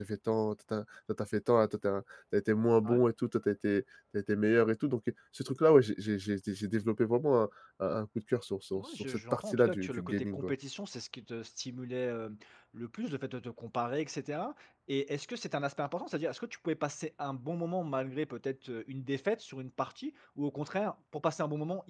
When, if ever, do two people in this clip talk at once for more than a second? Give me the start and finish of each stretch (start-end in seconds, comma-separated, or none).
8.7-10.5